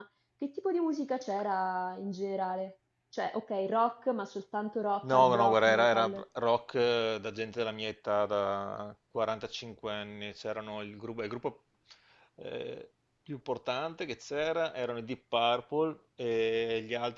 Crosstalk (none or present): present